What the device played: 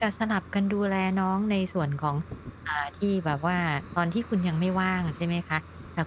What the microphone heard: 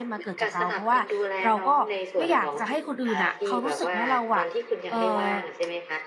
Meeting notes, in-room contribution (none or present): present